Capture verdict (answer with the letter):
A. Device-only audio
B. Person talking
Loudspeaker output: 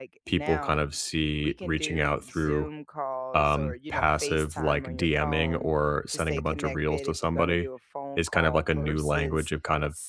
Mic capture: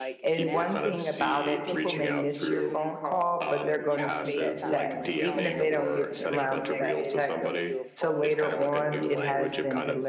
B